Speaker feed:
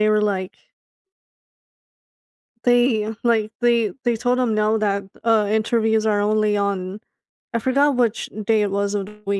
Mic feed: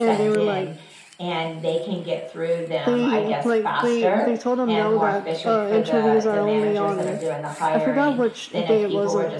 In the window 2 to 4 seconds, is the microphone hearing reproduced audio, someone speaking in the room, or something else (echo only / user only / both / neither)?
both